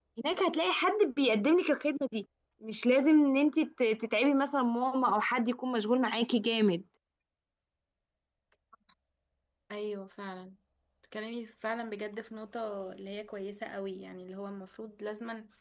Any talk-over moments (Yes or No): No